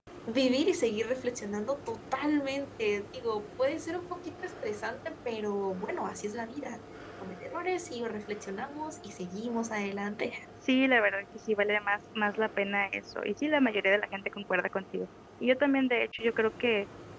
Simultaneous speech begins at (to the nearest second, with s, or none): none